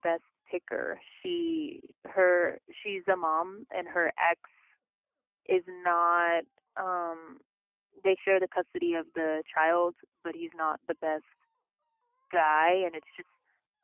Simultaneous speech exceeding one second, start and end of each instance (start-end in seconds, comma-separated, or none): none